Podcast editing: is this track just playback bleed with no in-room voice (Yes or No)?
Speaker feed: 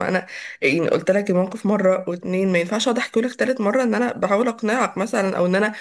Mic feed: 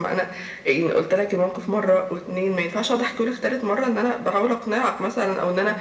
Yes